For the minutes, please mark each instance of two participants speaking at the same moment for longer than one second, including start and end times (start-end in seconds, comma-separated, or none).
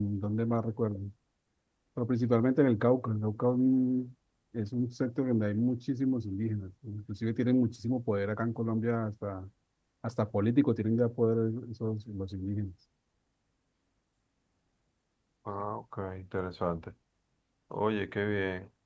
none